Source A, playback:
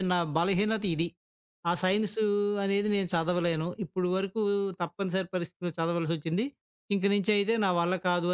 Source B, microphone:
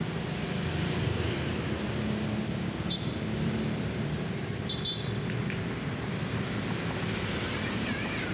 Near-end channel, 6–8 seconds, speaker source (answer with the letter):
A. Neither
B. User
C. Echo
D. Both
A